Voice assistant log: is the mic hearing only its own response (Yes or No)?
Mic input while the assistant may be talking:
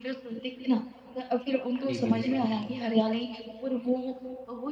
No